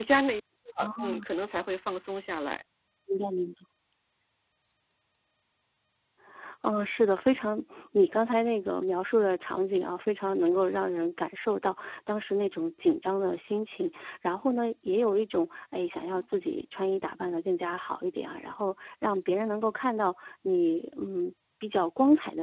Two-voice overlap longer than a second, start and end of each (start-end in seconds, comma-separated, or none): none